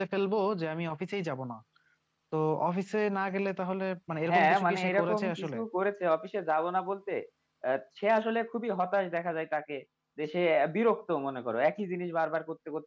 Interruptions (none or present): present